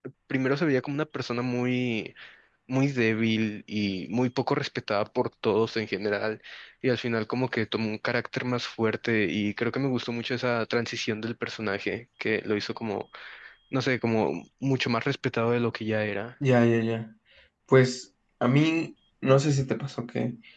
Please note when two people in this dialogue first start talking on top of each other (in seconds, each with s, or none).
none